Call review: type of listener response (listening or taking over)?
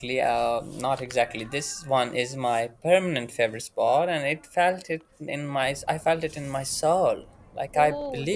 listening